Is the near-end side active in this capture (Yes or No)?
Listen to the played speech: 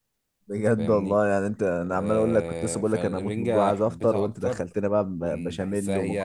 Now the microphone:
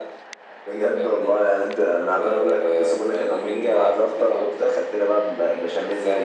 No